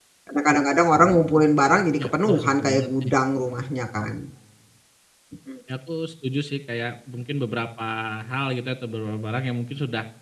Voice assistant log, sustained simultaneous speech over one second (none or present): present